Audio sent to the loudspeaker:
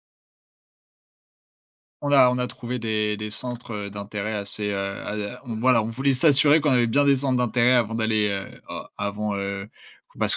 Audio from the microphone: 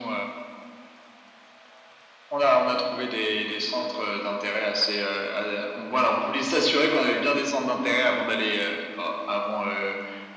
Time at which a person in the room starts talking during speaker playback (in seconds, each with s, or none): none